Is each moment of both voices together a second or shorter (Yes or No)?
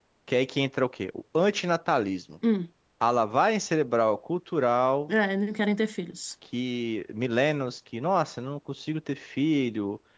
Yes